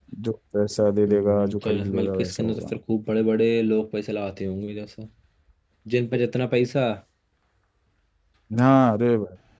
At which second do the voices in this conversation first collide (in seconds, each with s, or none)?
1.1 s